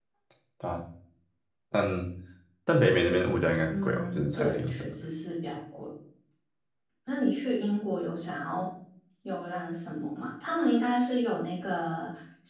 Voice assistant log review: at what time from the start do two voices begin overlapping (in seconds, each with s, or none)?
3.7 s